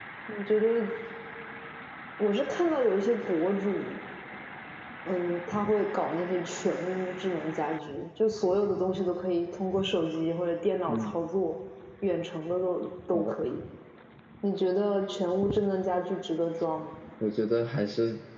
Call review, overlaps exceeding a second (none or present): none